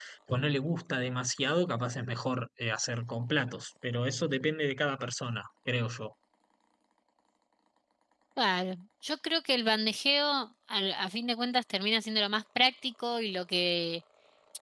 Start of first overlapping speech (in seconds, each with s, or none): none